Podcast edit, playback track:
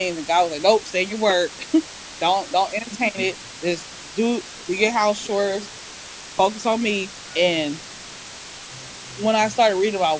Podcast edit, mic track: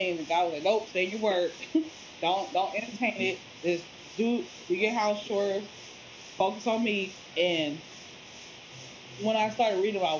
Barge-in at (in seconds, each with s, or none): none